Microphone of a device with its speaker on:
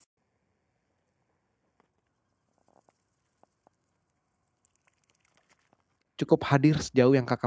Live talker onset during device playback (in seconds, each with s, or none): 6.2 s